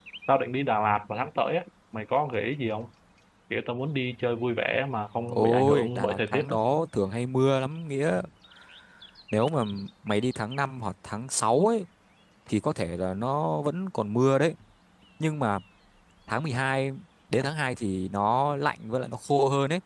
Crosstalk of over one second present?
Yes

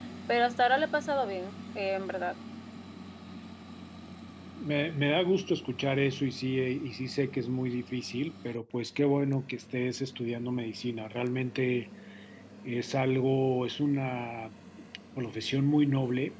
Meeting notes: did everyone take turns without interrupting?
Yes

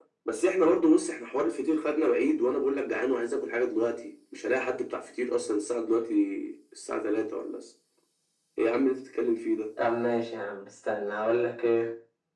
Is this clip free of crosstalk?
Yes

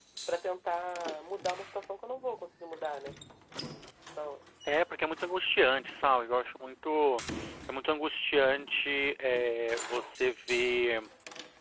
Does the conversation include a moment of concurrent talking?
No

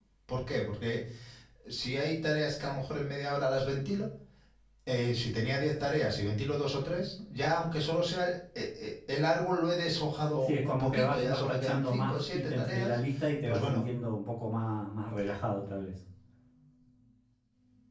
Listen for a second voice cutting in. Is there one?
Yes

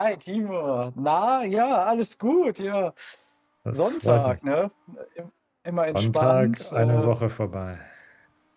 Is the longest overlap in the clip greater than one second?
Yes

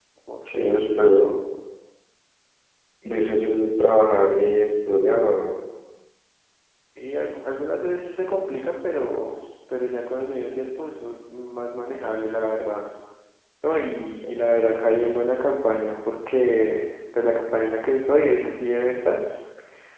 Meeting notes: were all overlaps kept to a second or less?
Yes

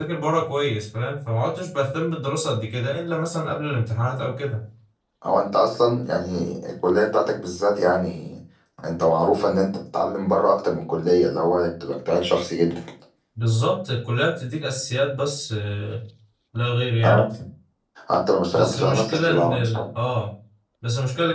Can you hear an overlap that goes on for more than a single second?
Yes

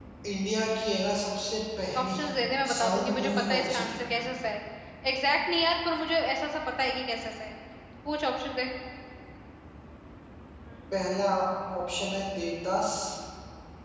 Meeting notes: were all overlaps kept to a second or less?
No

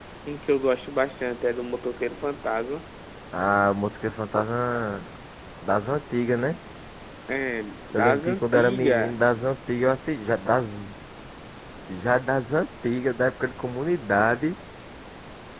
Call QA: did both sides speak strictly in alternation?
No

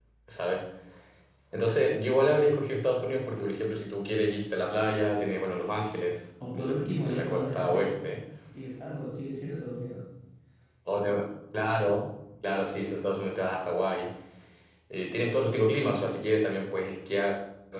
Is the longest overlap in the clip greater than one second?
Yes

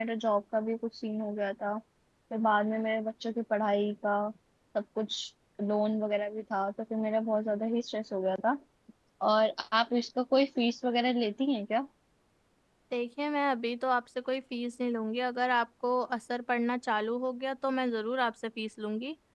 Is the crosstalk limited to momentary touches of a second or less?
Yes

